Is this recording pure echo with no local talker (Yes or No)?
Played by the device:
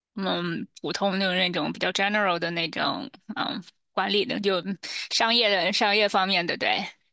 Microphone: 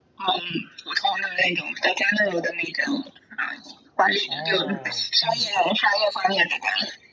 No